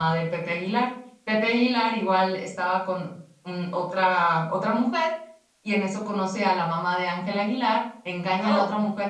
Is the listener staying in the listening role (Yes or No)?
Yes